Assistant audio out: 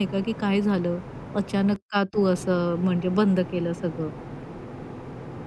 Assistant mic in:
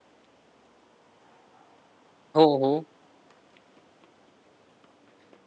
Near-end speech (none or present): present